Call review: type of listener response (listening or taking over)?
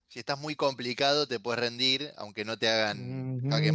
taking over